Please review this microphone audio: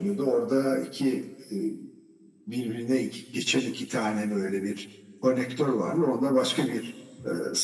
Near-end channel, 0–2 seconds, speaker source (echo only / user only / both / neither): echo only